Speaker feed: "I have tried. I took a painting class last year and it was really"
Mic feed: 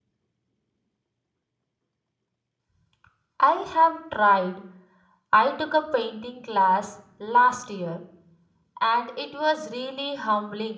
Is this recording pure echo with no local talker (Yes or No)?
Yes